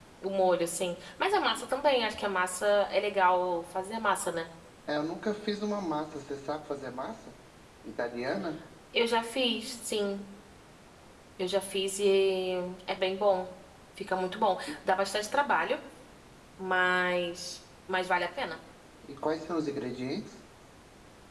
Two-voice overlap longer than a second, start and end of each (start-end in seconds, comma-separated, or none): none